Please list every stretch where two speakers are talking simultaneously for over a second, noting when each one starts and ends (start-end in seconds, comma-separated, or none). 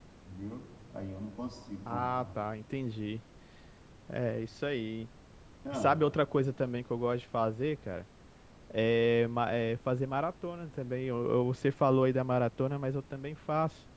none